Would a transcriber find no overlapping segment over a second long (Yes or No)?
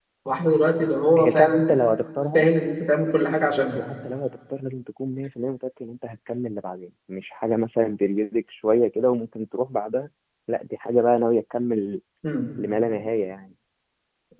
Yes